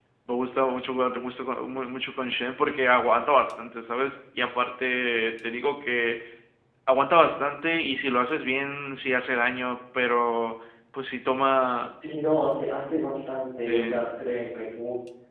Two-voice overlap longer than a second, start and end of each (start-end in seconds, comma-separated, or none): none